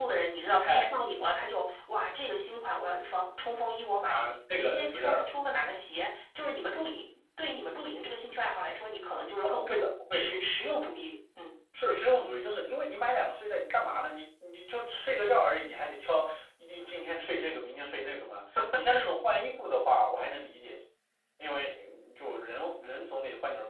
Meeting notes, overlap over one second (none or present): present